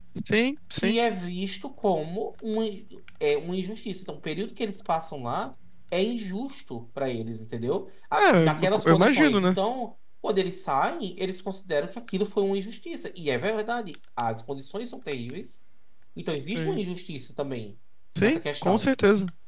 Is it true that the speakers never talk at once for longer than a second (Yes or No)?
No